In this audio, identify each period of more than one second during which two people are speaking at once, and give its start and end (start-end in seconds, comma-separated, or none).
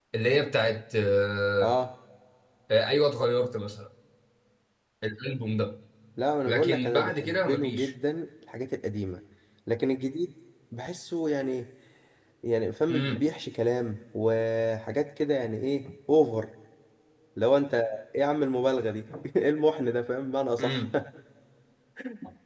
6.5-7.9